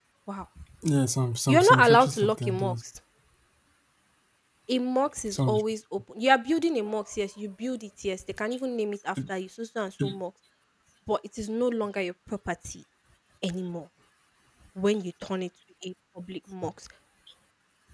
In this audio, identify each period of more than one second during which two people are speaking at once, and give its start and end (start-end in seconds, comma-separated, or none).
1.5-2.7